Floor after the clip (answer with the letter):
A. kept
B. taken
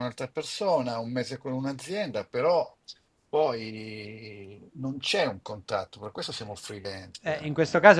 B